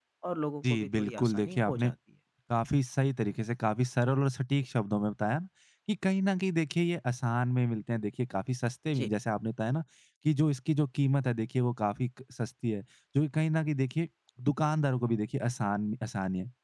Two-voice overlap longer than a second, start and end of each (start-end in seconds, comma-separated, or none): 0.7-1.9